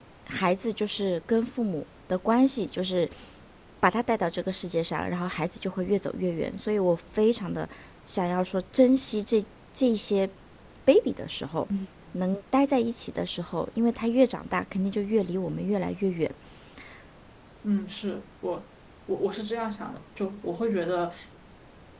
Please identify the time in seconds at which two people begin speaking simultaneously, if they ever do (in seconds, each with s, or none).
none